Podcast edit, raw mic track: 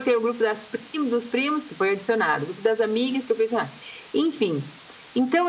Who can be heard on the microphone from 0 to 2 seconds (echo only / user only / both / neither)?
echo only